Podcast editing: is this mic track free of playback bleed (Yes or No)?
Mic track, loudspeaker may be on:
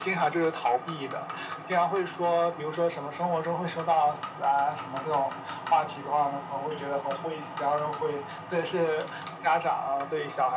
No